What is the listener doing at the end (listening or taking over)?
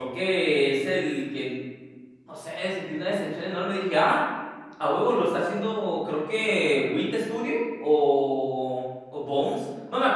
listening